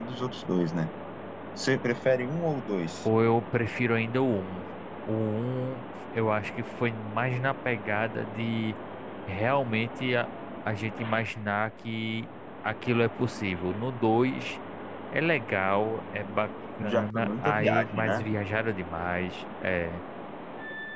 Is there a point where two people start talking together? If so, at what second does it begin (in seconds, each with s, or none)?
16.8 s